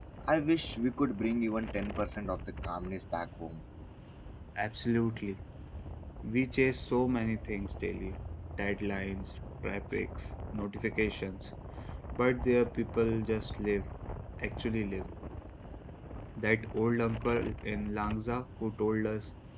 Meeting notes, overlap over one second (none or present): none